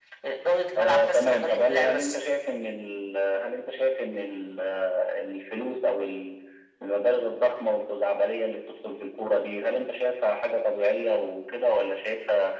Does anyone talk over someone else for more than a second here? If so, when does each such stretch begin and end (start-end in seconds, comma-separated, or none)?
0.8-2.1